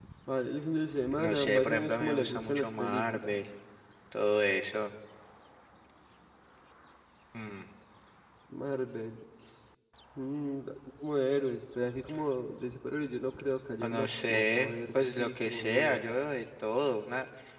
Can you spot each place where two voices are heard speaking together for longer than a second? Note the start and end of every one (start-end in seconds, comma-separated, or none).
1.2-3.4, 13.8-16.1